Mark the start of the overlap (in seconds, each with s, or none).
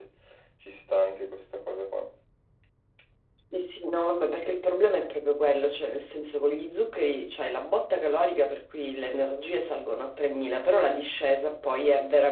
none